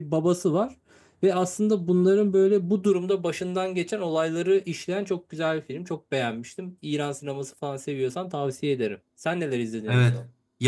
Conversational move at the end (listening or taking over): taking over